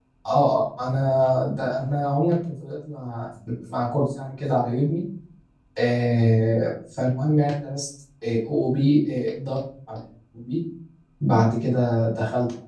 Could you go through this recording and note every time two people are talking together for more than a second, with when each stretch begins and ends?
none

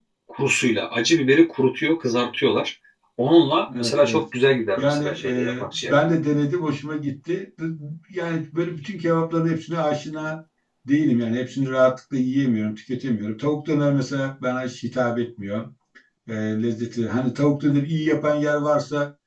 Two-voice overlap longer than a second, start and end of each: 4.8-6.0

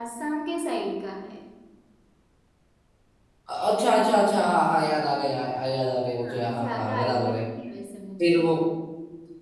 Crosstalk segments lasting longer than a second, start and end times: 6.1-7.3

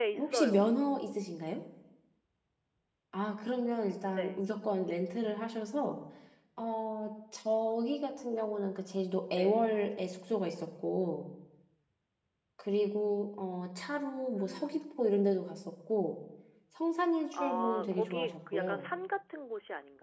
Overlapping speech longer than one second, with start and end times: 17.3-18.9

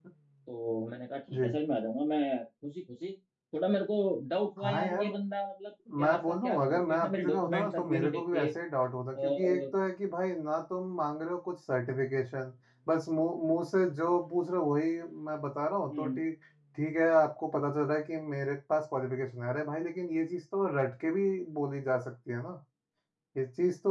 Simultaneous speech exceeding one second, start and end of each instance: 6.0-8.5

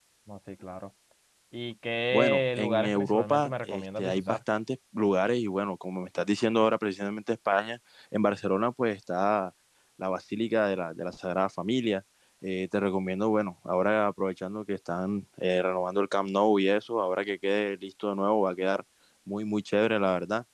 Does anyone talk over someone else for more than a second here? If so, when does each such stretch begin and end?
2.1-4.4

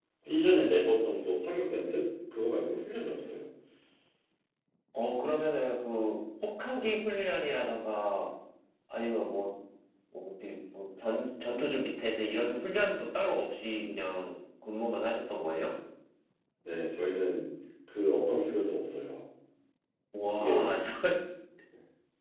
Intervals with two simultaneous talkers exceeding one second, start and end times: none

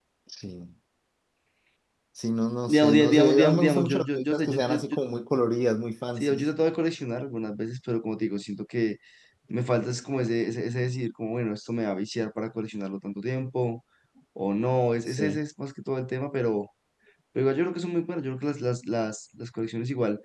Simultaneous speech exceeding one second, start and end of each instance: 2.7-4.8

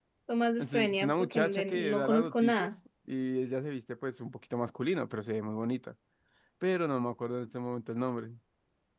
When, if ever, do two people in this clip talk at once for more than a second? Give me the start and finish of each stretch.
0.6-2.7

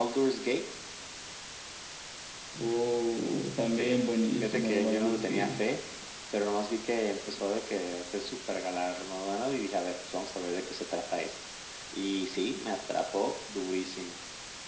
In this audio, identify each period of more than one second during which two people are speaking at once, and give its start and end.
4.4-5.6

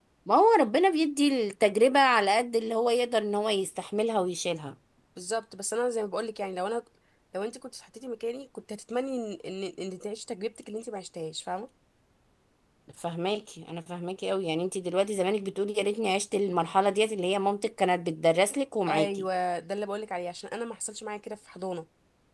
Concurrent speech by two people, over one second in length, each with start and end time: none

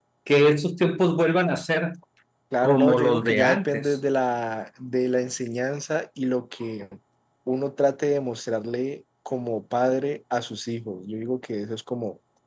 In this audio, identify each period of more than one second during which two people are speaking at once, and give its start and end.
2.6-4.0

